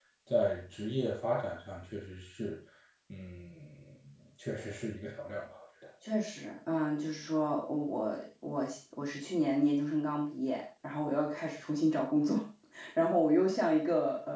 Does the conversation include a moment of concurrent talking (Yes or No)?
No